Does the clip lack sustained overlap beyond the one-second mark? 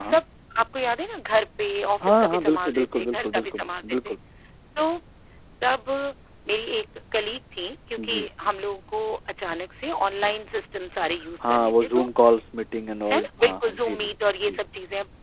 No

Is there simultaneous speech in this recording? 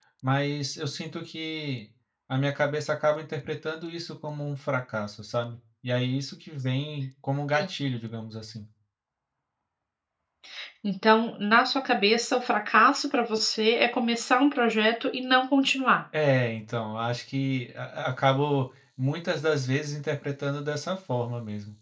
No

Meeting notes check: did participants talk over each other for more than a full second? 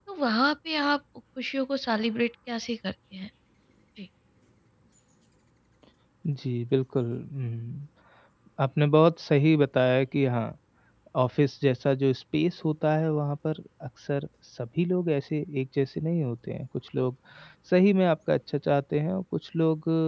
No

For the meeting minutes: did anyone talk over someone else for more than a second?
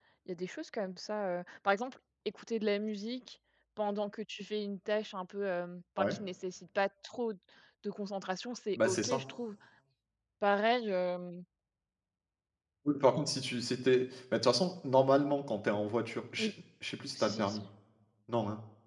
No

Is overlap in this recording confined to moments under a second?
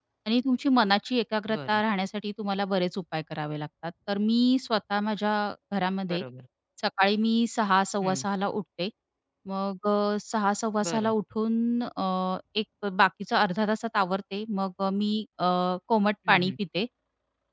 Yes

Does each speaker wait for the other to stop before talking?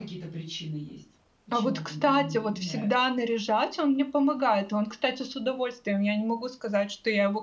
No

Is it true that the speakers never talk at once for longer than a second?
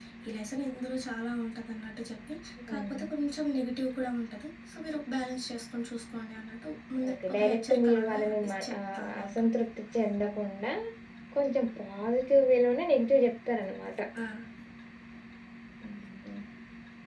No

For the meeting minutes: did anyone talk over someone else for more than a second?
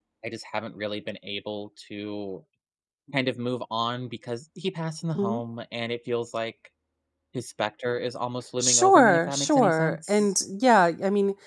Yes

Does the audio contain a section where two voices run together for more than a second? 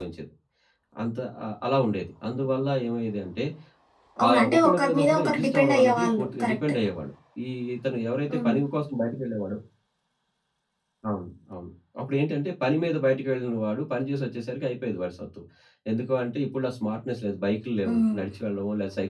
Yes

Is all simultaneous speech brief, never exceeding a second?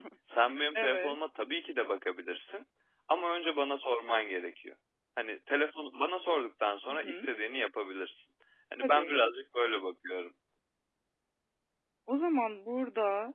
Yes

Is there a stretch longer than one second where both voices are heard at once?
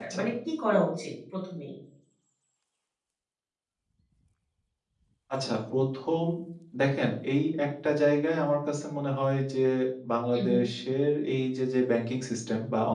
No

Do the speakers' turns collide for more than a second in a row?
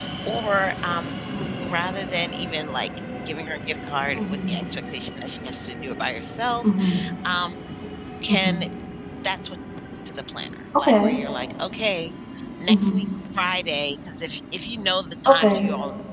No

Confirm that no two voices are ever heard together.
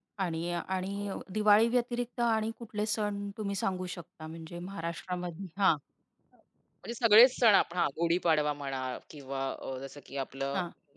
Yes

